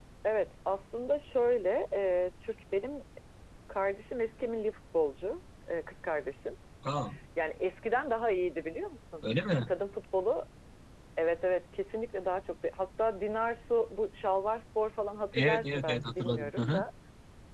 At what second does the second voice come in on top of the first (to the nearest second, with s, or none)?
15 s